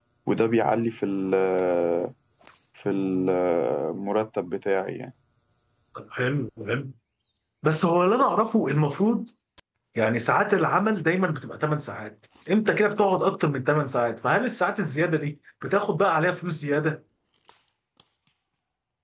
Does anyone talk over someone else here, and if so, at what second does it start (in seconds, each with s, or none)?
none